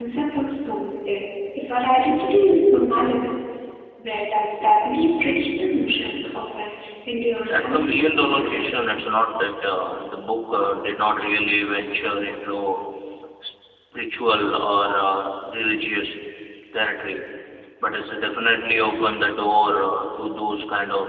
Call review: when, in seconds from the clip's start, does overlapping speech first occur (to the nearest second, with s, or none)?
7 s